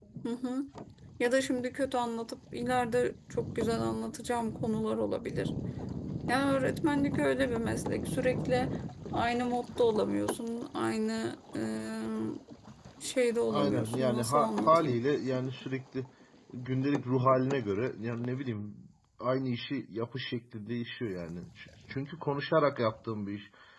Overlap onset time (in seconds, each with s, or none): 13.5 s